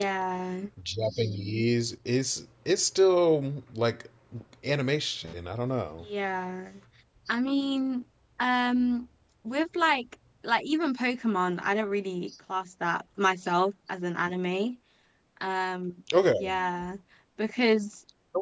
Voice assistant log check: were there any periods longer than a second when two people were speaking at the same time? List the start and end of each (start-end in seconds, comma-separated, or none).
none